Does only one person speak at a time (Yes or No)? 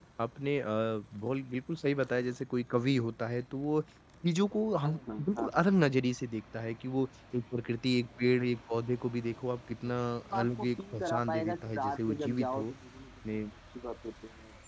No